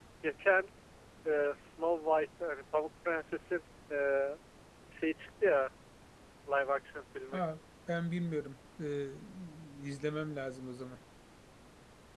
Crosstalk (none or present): none